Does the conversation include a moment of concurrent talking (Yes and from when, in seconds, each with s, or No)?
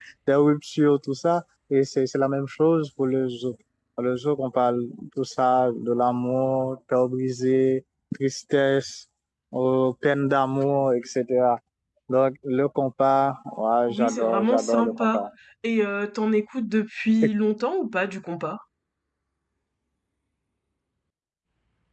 Yes, from 13.9 s